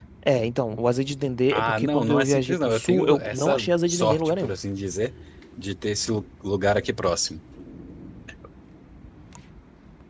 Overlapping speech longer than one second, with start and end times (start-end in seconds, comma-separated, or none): 1.5-4.5